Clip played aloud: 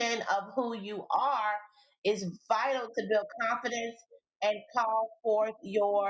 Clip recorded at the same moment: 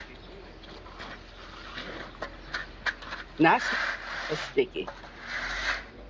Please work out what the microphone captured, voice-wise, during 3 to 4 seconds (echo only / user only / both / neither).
user only